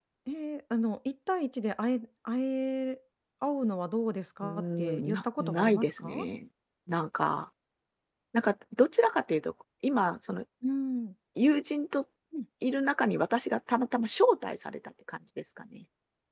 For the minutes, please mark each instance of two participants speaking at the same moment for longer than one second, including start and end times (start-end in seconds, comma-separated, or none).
4.4-6.3